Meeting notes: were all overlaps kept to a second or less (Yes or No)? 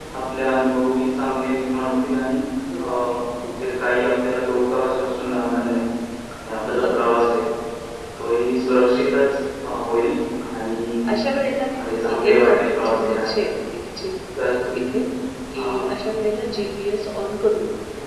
No